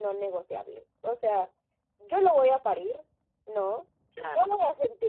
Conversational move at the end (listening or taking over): listening